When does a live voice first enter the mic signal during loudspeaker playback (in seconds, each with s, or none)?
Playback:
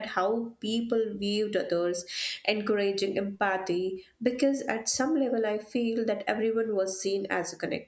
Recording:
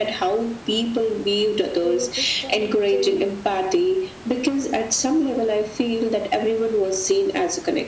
1.8 s